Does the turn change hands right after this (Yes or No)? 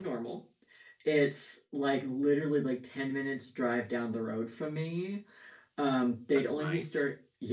No